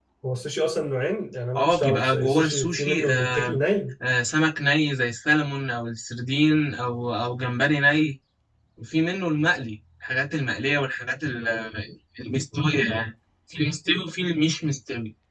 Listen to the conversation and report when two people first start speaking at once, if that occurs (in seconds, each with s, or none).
1.5 s